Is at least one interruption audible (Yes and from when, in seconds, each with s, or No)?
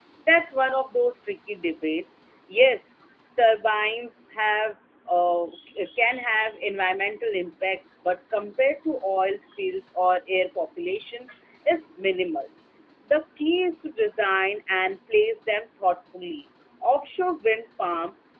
No